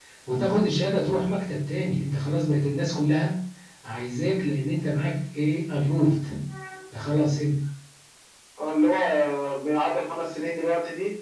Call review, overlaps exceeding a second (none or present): none